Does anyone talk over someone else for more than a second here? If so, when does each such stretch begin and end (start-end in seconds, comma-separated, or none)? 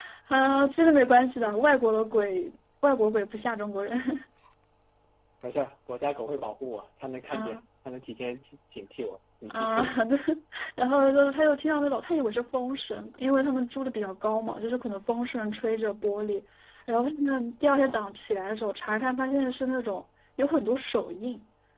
none